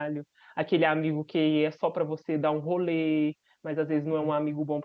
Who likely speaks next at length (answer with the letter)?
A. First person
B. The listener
A